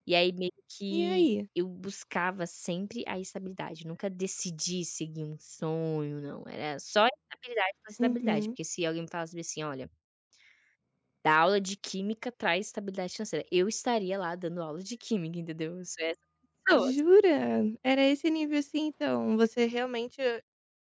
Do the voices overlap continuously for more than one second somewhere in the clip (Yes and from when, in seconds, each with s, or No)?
No